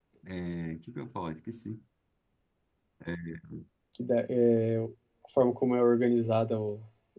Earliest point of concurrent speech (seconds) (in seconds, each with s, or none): none